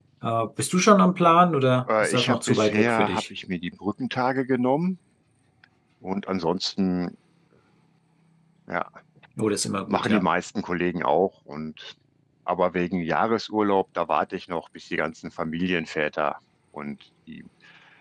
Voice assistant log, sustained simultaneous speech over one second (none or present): present